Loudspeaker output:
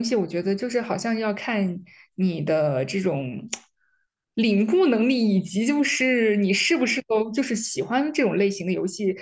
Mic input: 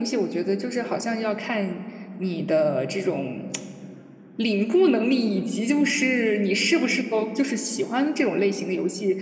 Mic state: echo only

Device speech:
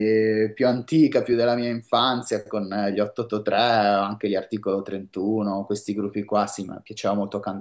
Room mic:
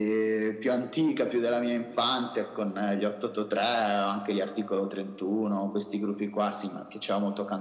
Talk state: echo only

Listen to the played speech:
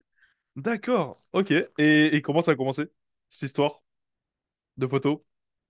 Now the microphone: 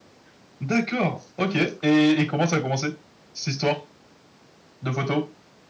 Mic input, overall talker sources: echo only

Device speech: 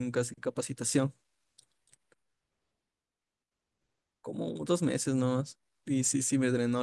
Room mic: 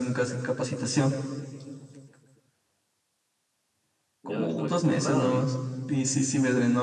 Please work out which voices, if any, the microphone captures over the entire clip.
both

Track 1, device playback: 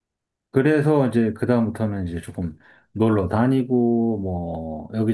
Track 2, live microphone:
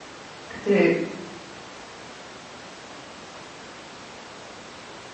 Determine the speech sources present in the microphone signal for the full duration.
user only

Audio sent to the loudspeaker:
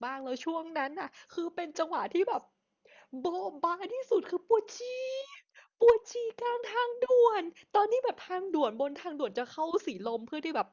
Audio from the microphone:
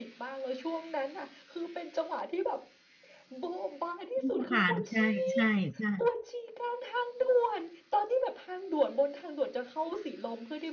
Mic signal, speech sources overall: both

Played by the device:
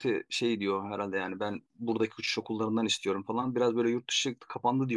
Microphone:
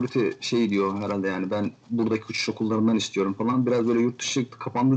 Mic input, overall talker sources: echo only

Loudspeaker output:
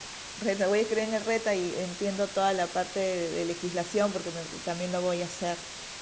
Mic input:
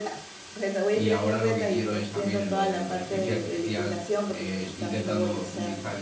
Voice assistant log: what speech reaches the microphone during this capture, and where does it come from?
both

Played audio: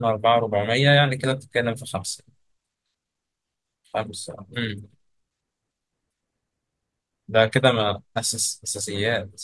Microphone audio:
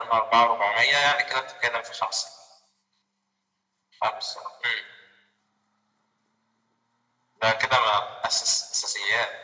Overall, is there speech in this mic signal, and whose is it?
echo only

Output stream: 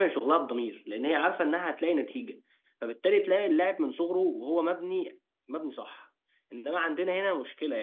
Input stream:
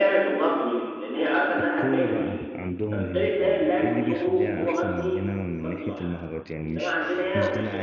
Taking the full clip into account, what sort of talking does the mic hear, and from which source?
both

